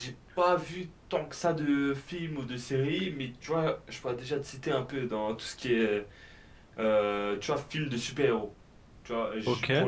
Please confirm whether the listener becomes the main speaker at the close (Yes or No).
No